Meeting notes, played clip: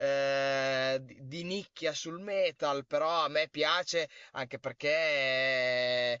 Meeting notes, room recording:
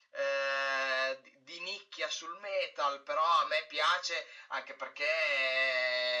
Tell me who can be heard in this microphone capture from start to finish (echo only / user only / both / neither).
echo only